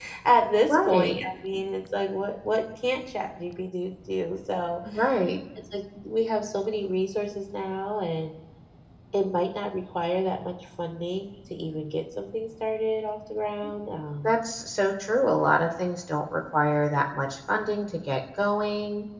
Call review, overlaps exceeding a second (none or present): none